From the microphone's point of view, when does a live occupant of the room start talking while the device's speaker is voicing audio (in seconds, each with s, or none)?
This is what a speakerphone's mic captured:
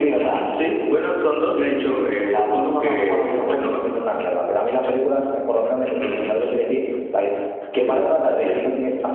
3.5 s